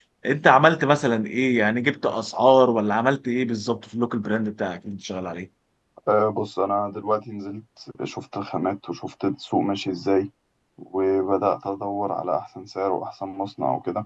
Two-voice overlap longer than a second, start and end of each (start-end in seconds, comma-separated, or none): none